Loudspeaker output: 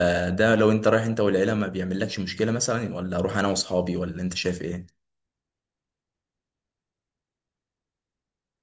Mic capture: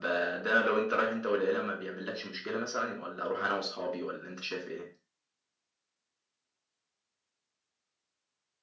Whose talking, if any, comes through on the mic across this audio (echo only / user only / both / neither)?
echo only